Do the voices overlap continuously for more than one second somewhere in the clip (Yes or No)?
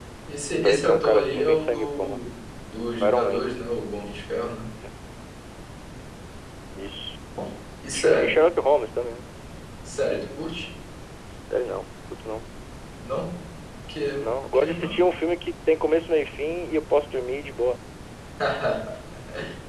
Yes